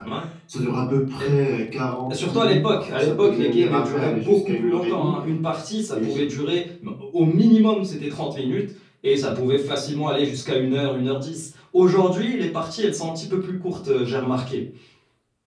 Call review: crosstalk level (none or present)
present